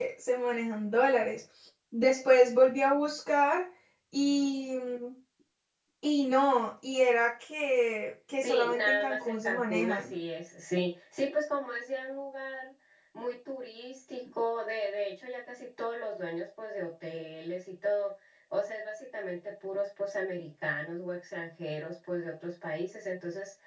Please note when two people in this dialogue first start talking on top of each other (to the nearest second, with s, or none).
8 s